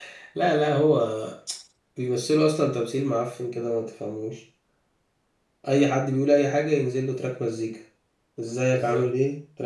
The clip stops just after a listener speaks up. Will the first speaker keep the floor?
Yes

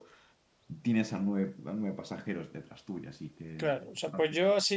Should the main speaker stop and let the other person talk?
Yes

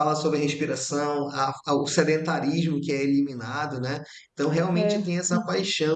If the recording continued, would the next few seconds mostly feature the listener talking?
No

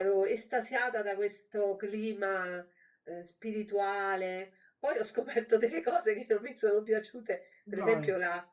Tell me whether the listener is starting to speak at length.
No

